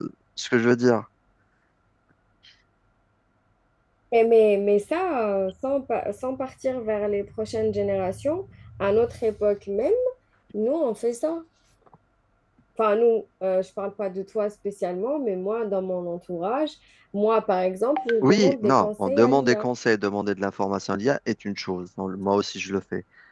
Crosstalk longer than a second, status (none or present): present